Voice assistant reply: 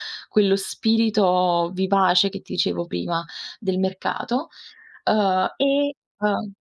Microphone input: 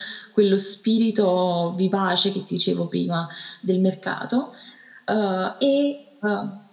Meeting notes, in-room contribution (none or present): none